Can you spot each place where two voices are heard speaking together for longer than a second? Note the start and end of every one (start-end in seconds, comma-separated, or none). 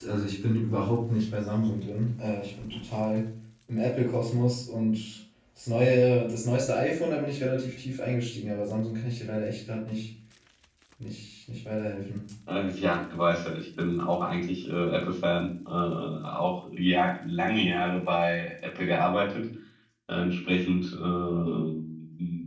none